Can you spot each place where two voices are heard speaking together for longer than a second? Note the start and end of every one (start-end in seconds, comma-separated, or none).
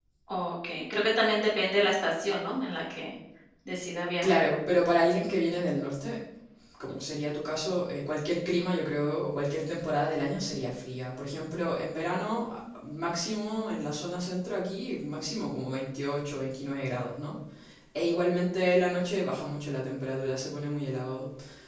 none